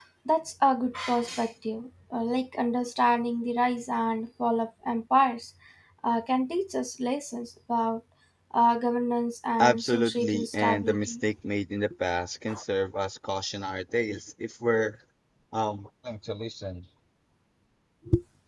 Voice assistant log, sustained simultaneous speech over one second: present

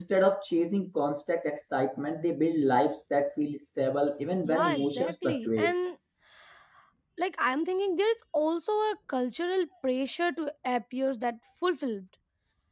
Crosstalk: present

